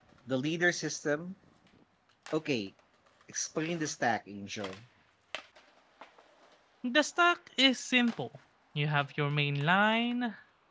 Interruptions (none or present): none